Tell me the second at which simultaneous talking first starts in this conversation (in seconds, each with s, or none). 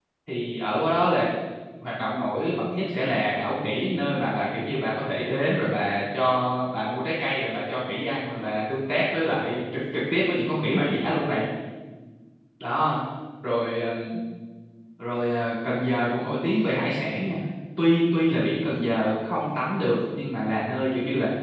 none